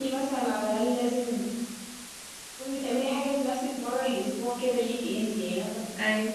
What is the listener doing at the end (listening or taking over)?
listening